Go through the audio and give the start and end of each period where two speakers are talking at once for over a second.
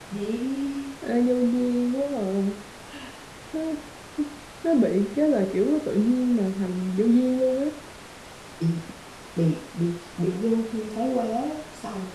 none

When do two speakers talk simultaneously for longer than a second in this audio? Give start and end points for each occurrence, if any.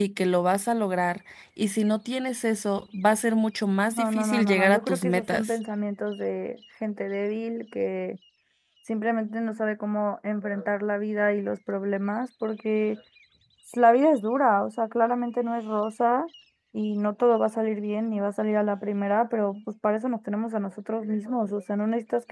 3.9-5.6

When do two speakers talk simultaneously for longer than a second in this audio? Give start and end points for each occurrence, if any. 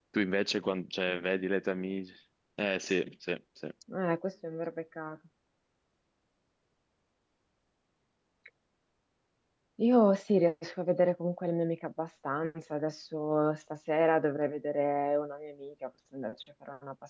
none

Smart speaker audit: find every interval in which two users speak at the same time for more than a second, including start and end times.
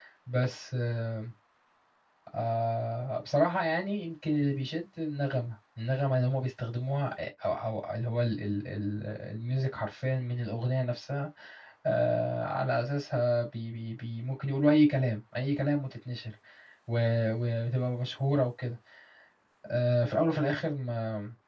none

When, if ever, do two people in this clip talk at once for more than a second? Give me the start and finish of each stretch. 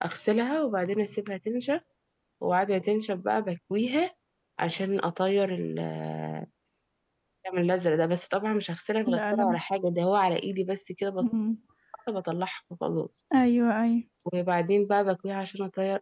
none

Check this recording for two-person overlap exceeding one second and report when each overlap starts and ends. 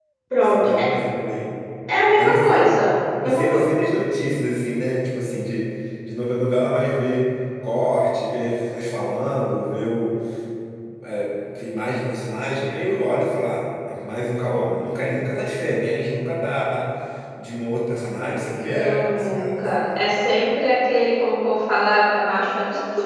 18.6-19.9

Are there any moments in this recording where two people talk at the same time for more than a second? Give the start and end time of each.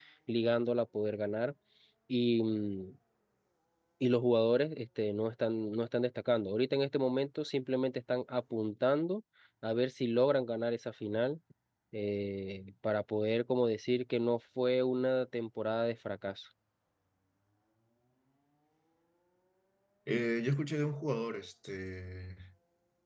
none

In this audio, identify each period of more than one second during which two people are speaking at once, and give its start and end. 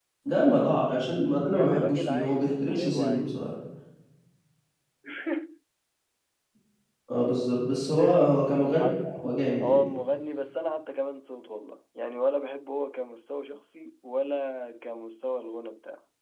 1.5-3.3

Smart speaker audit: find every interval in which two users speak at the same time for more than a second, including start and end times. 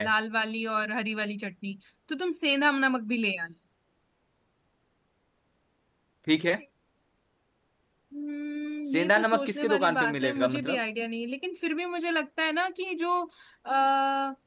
8.9-10.8

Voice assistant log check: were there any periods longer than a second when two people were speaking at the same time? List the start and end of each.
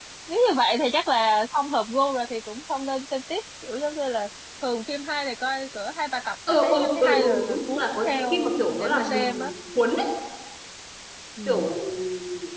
6.5-9.5

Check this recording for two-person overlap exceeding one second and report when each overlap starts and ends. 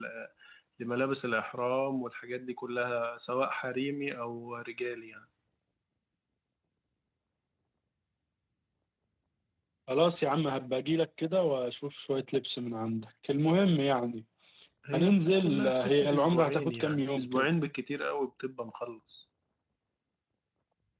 14.9-17.5

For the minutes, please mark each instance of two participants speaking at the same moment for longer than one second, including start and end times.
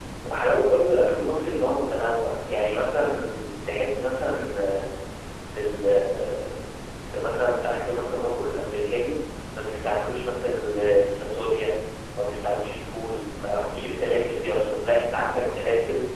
none

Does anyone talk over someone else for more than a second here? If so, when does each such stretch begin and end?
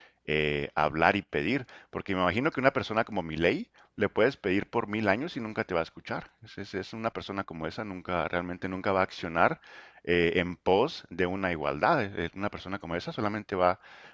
none

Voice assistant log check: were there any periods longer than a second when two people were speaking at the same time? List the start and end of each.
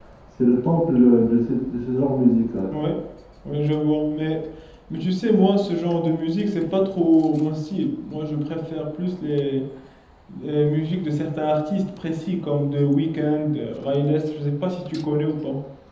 none

